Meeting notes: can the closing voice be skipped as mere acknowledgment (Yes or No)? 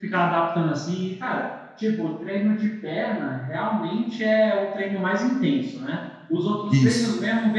Yes